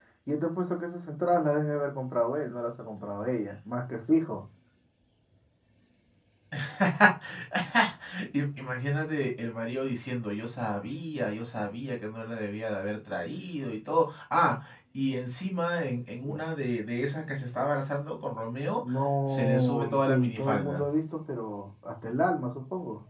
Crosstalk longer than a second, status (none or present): present